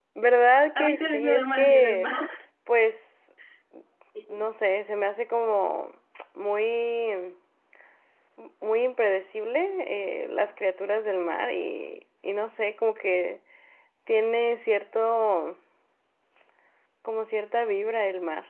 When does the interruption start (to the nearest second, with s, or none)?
1 s